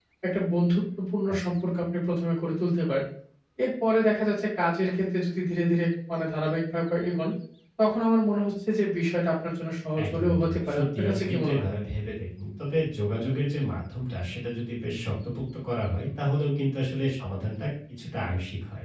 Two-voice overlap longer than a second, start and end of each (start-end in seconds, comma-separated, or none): 10.0-11.7